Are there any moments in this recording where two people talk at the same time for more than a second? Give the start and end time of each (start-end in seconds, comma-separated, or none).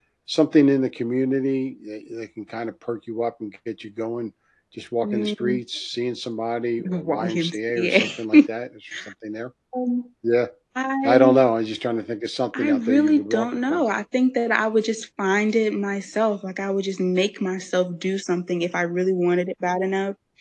6.8-8.4, 12.6-13.8